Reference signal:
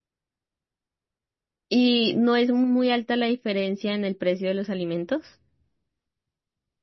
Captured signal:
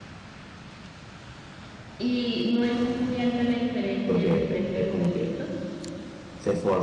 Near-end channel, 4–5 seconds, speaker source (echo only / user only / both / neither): both